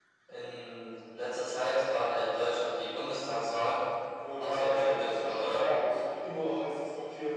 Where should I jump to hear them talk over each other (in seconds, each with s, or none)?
4.4 s